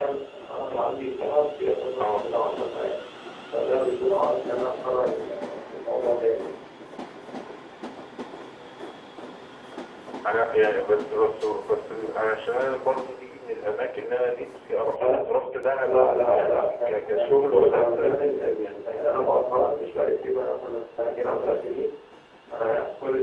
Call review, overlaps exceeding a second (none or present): present